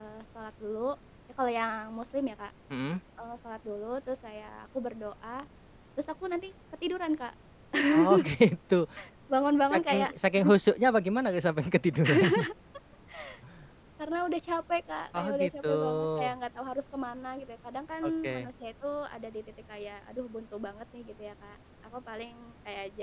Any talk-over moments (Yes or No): Yes